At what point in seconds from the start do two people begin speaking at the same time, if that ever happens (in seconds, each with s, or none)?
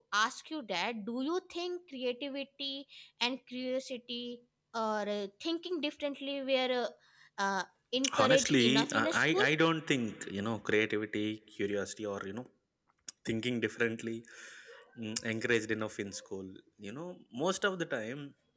8.2 s